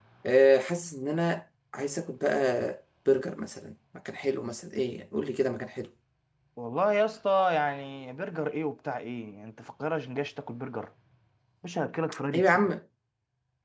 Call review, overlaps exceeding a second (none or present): none